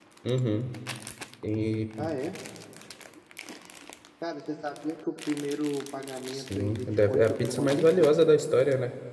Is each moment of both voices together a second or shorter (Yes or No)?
No